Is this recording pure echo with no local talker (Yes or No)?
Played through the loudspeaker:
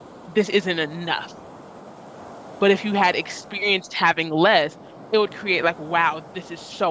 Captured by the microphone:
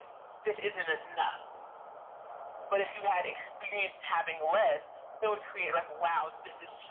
Yes